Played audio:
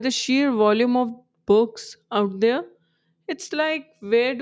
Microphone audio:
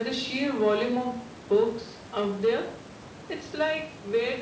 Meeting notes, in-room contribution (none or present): none